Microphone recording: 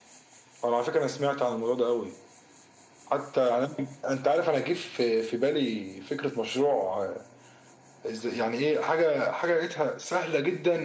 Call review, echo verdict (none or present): present